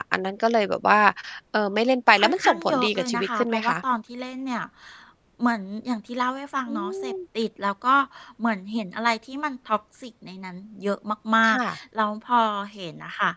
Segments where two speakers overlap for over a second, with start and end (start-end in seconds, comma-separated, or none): 2.2-3.7